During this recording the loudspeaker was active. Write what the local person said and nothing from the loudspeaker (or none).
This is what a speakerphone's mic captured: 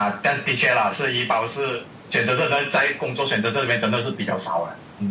none